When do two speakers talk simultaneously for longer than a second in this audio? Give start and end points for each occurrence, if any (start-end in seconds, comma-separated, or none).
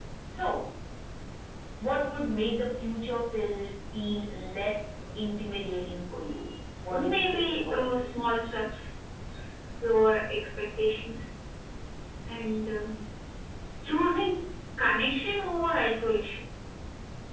6.9-8.2